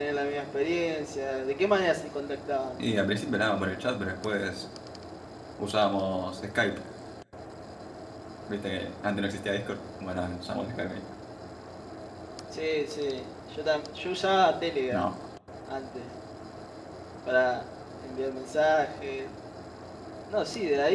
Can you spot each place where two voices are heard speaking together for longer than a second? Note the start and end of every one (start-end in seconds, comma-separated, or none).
none